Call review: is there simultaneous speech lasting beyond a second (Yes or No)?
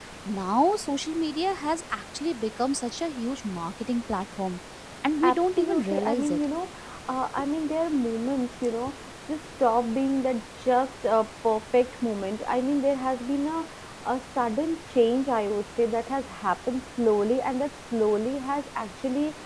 Yes